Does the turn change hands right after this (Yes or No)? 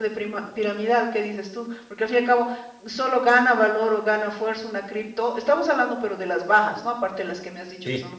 No